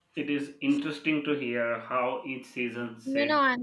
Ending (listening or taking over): taking over